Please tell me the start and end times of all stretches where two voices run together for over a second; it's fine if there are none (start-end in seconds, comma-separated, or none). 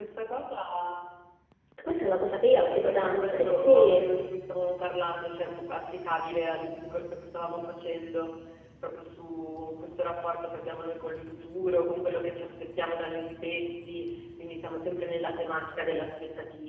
2.6-4.1